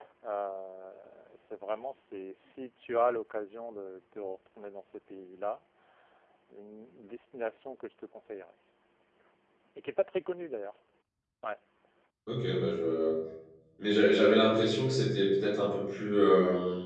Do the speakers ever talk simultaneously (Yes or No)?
No